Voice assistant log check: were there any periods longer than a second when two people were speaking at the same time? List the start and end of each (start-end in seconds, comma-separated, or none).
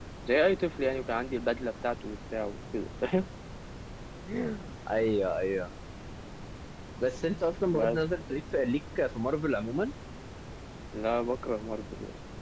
none